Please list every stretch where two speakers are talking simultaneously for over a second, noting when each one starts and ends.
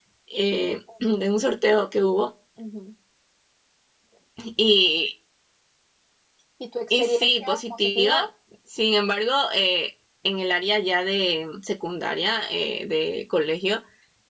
6.9-8.3

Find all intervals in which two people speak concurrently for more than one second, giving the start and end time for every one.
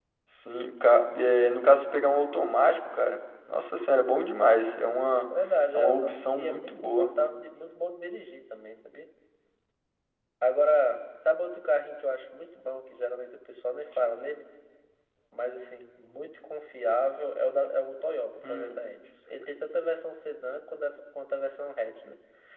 5.7-7.1

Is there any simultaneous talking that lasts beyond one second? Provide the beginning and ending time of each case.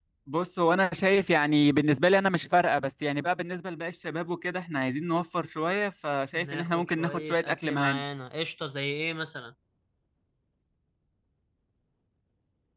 6.3-8.0

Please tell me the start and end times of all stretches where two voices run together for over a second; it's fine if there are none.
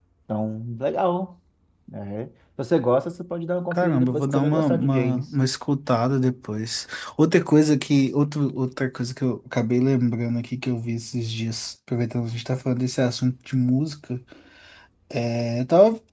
3.7-5.3

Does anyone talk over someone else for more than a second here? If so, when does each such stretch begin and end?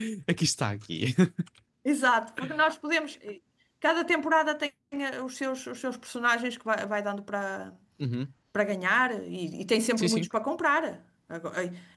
none

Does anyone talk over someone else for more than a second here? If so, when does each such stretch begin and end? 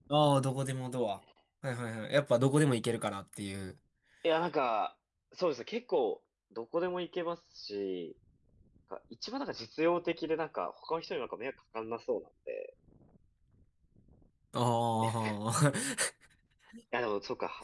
none

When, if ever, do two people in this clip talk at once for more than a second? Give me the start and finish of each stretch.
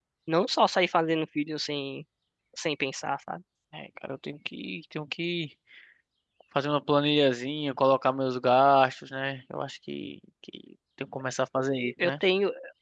none

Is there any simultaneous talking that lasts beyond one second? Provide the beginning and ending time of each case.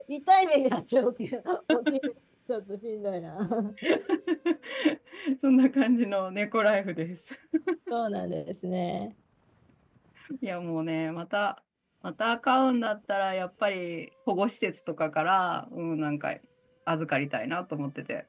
none

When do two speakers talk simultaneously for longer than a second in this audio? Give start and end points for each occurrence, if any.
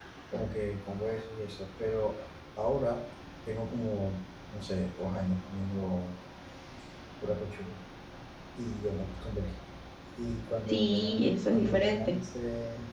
10.7-12.2

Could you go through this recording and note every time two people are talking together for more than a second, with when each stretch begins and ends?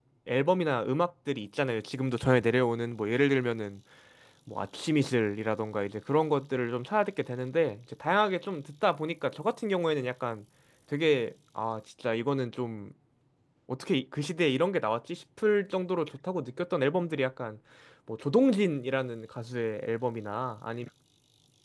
none

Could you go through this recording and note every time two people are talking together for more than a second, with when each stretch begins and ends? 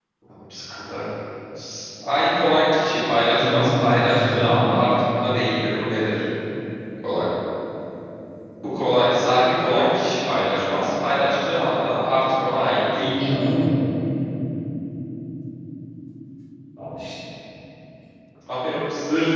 3.4-4.7

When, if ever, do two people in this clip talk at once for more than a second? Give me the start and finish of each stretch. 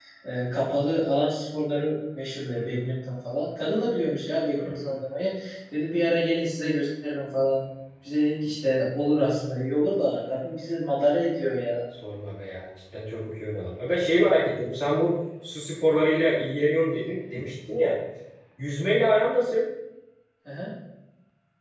none

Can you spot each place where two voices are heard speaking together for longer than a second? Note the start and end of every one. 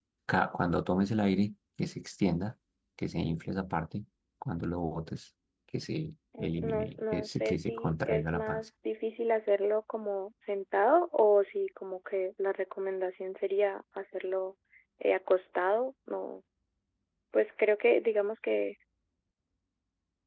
6.4-8.7

